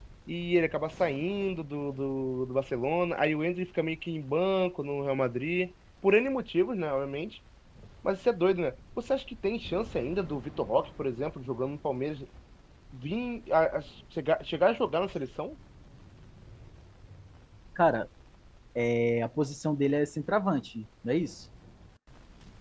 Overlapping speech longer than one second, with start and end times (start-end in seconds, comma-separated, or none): none